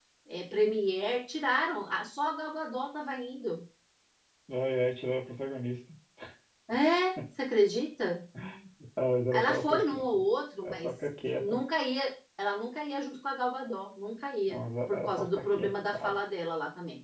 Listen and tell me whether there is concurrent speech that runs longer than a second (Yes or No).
Yes